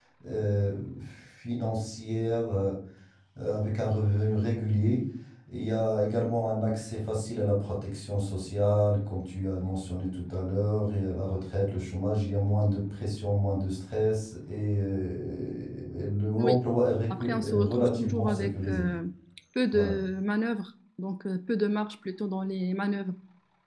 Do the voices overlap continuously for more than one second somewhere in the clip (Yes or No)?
Yes